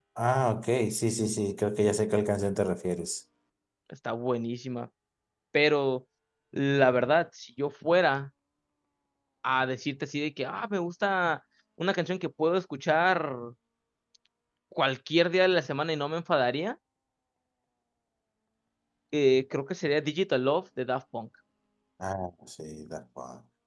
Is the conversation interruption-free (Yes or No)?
Yes